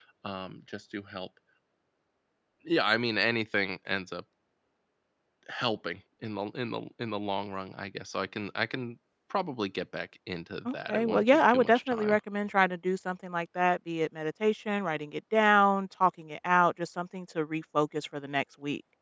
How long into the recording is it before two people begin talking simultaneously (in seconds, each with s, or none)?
10.7 s